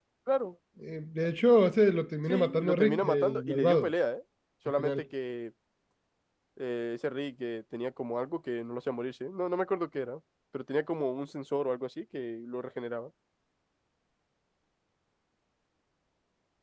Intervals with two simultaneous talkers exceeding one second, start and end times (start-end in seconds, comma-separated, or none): 2.3-3.9